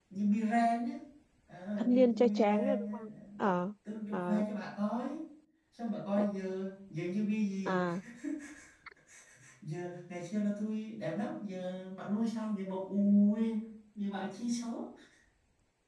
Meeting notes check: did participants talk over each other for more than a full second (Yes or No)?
Yes